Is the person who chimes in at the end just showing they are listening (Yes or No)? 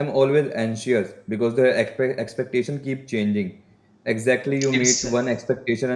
Yes